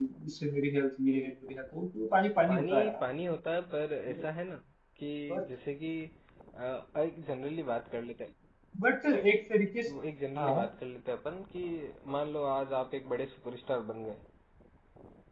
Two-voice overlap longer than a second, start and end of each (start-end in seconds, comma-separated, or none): none